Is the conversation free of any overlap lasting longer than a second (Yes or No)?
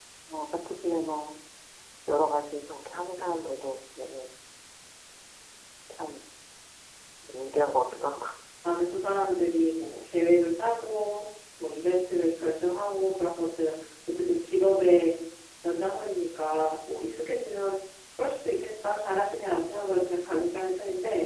Yes